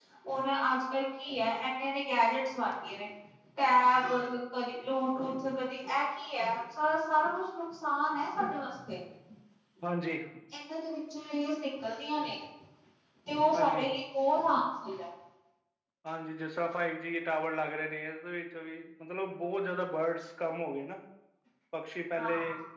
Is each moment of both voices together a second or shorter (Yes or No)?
Yes